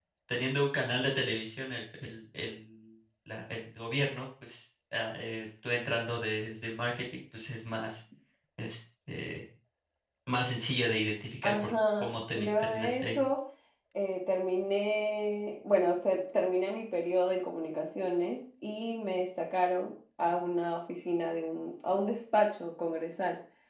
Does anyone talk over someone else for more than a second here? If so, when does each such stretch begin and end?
11.4-13.2

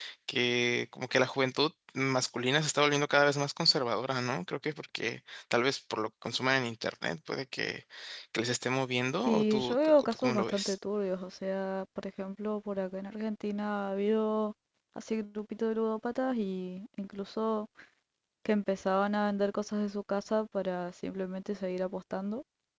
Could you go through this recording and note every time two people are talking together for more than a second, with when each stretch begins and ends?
9.3-10.7

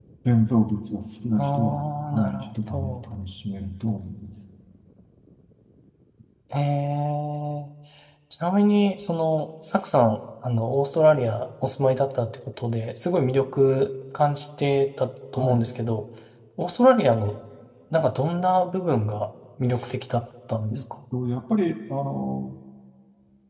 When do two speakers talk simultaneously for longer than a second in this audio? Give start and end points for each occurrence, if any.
1.4-3.0

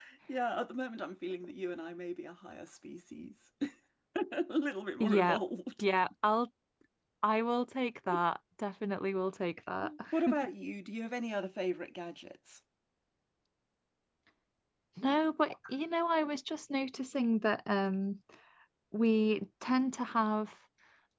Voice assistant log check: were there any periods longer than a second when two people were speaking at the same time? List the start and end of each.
none

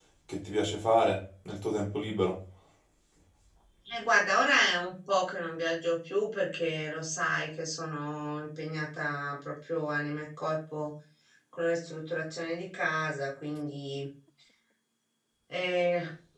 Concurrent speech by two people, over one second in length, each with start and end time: none

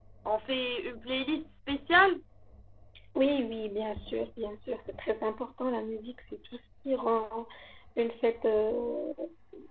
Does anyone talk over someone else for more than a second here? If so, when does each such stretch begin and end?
none

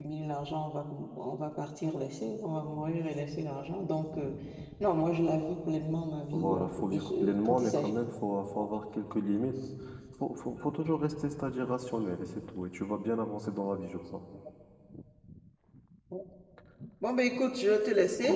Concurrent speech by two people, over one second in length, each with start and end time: 6.3-7.9

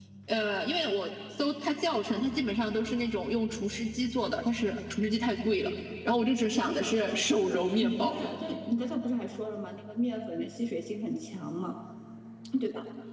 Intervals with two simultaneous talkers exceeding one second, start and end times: 6.6-8.1

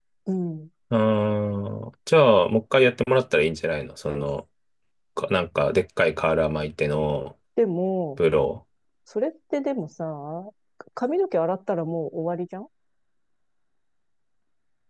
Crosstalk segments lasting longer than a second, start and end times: none

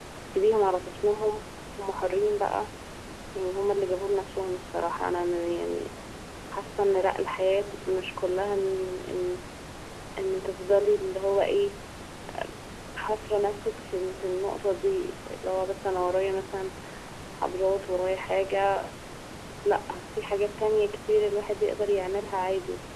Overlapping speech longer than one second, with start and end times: none

